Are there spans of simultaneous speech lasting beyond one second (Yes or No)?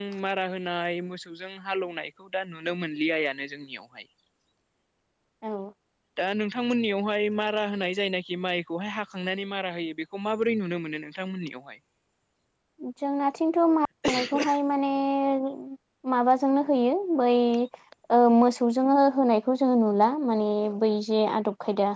No